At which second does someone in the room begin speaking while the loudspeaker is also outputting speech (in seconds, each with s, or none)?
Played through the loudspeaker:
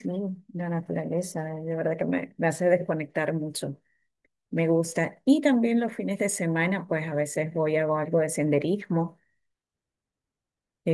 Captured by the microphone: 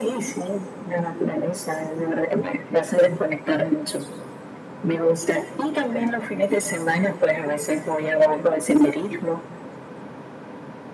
none